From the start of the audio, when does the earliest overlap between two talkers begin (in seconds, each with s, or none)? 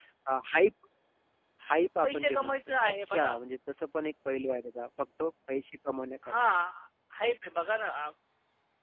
2.0 s